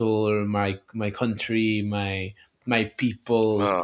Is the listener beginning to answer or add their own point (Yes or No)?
No